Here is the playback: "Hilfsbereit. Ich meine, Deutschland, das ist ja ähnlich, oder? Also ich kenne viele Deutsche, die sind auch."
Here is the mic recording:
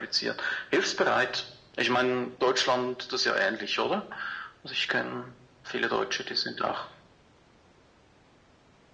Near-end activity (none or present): none